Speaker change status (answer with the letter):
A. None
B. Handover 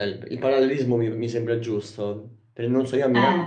A